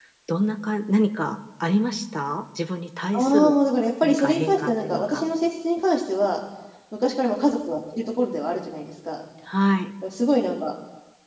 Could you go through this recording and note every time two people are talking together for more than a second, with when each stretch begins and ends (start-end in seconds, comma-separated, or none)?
4.0-5.2